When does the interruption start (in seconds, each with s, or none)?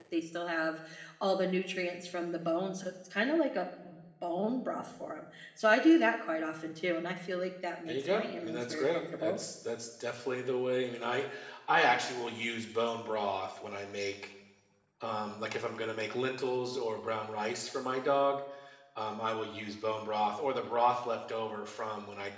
7.9 s